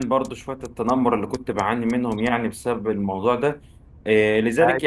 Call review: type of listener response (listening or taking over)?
listening